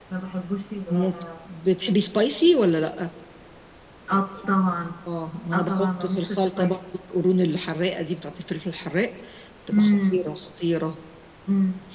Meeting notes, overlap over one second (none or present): present